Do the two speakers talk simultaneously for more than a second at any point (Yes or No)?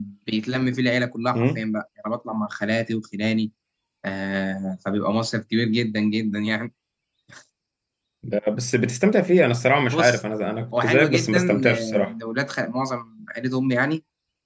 Yes